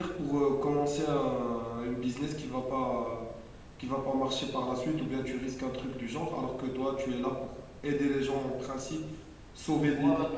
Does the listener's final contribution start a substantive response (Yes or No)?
Yes